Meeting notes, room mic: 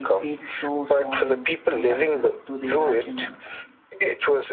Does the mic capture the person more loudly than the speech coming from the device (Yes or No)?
No